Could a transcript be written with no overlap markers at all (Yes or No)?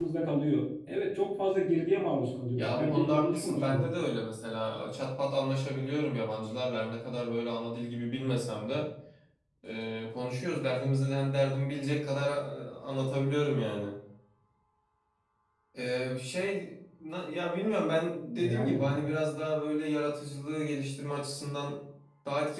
No